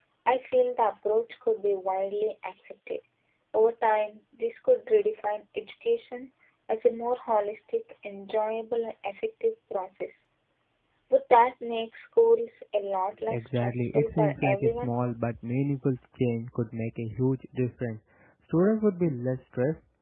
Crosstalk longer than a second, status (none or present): present